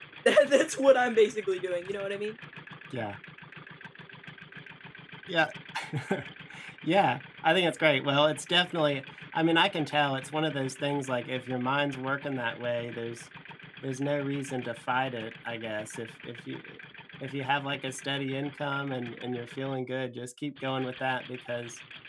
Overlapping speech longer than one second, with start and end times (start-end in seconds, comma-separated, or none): none